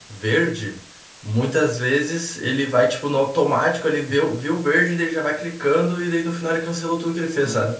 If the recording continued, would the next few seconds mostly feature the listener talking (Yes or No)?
Yes